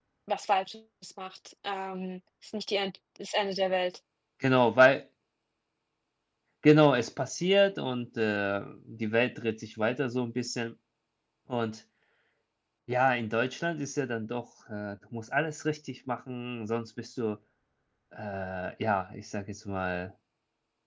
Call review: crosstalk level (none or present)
none